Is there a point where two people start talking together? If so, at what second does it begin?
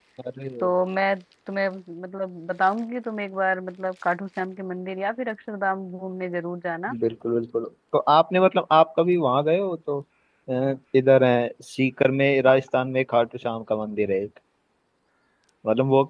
none

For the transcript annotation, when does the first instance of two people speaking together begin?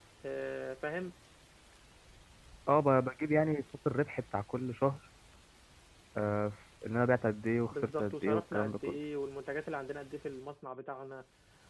7.7 s

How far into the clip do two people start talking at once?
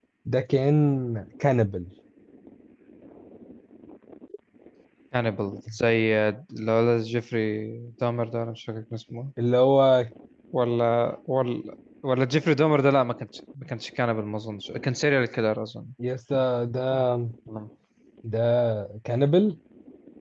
none

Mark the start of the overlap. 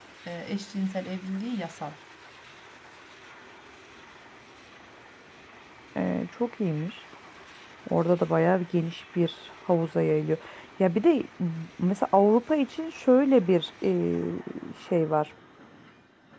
none

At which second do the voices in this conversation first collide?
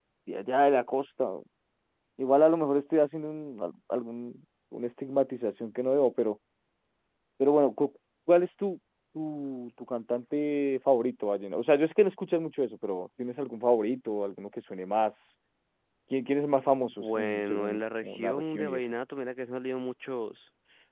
16.9 s

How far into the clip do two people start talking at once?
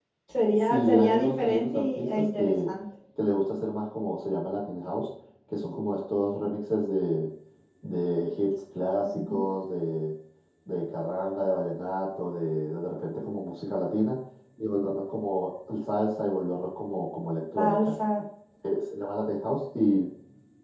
0.5 s

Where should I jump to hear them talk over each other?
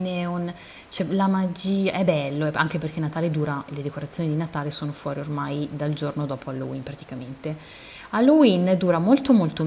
none

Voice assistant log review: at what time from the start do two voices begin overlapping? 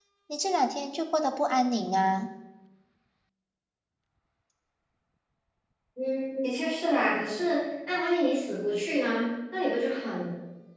none

